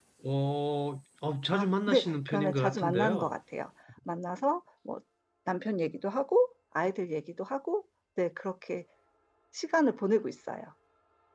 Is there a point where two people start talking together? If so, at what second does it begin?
1.5 s

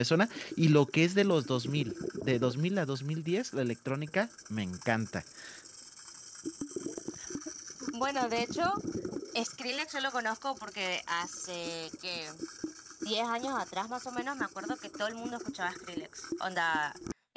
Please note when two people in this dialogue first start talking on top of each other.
none

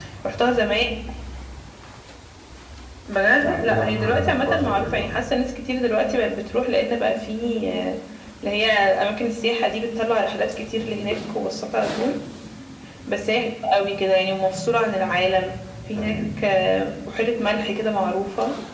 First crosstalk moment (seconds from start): 3.4 s

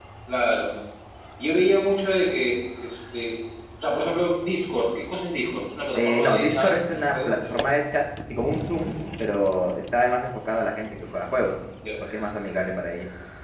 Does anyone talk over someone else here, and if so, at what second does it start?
6.0 s

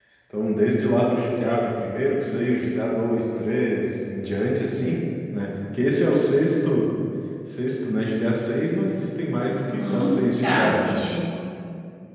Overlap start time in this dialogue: 9.6 s

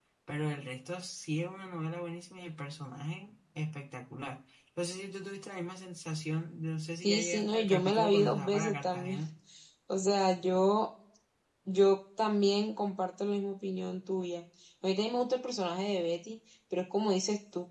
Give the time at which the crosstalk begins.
7.0 s

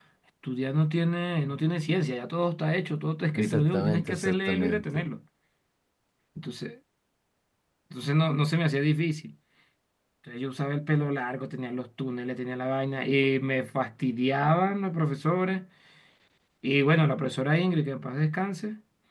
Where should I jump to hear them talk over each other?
3.4 s

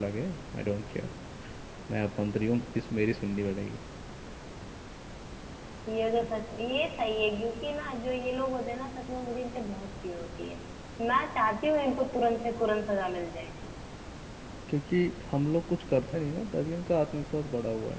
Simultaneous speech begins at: none

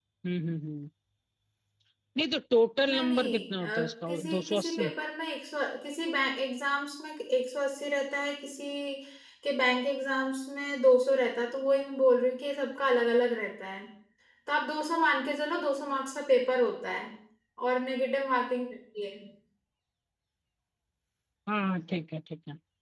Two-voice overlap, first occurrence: 2.8 s

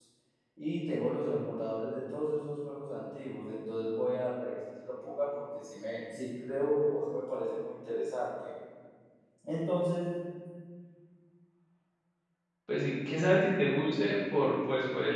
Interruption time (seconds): none

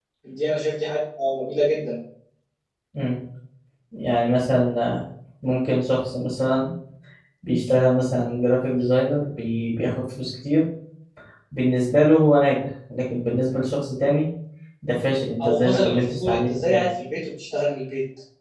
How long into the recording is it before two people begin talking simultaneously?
15.4 s

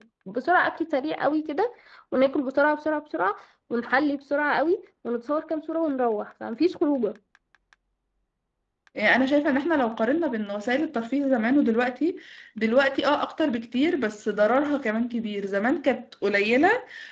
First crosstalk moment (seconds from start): none

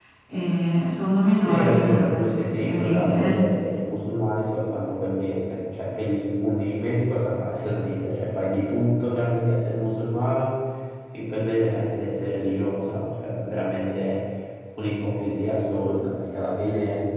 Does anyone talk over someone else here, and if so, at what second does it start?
1.4 s

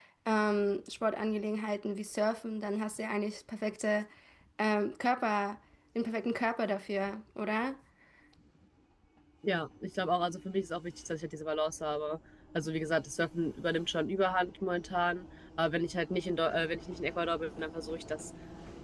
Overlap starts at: none

